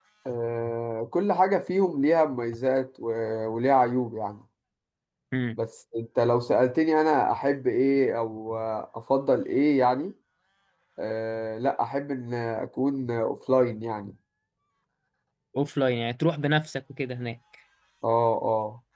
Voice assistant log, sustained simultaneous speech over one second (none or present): none